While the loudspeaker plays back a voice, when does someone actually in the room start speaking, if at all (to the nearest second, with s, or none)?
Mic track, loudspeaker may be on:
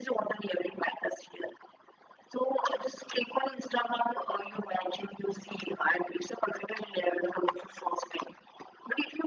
none